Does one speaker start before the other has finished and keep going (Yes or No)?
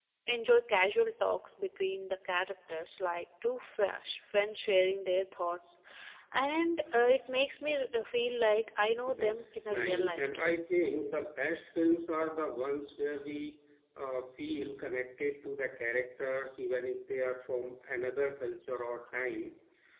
Yes